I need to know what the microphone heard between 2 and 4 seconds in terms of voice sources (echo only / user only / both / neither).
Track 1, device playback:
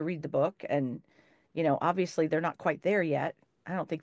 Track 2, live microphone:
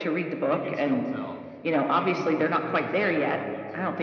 both